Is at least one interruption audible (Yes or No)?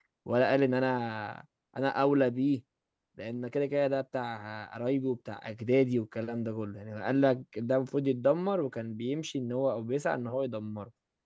No